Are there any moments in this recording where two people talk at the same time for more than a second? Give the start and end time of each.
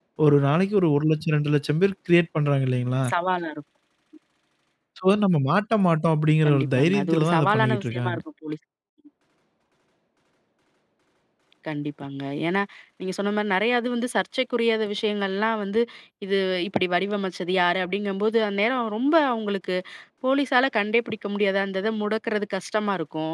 6.4-8.2

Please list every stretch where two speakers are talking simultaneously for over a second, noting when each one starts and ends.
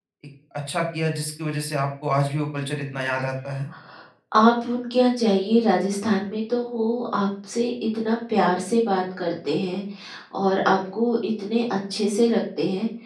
none

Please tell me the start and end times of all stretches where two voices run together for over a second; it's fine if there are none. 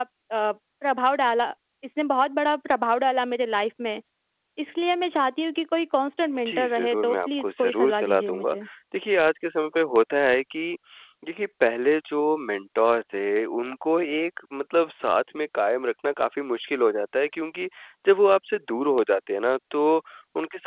6.5-8.5

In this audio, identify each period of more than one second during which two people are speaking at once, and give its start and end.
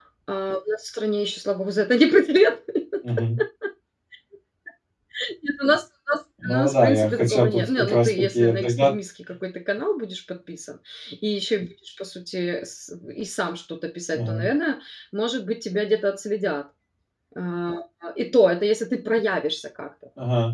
6.4-8.9

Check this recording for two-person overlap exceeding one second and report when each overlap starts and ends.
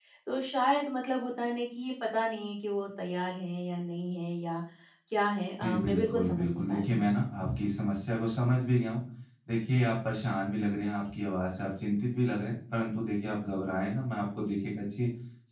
5.6-7.1

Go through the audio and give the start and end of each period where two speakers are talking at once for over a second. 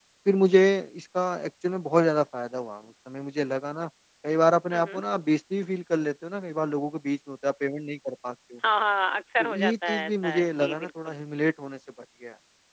9.4-11.2

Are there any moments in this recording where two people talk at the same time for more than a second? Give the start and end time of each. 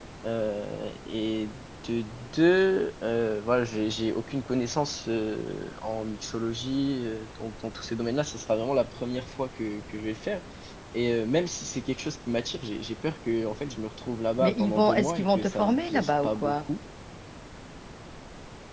14.4-16.6

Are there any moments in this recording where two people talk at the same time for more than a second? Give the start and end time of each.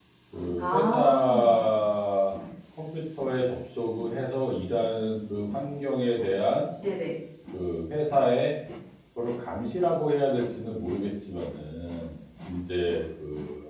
0.6-1.8

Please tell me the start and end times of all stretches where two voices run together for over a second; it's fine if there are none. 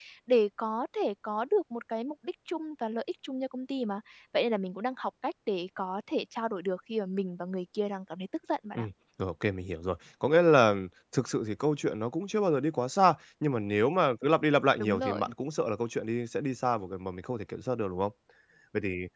none

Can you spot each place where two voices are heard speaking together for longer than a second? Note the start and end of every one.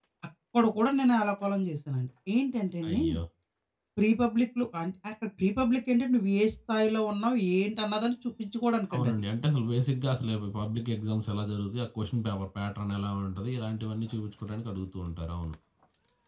none

